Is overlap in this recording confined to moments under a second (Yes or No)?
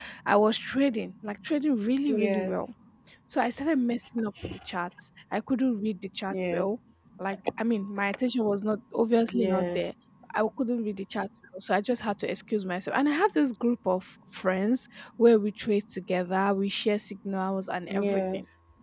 Yes